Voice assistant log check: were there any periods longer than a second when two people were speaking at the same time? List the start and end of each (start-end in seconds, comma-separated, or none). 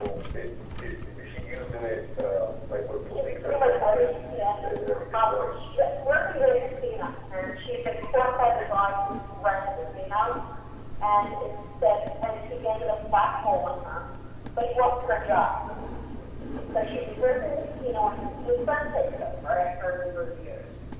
3.2-4.5